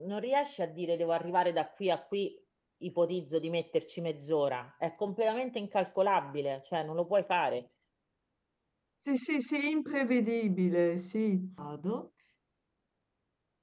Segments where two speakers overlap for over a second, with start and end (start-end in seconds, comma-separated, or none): none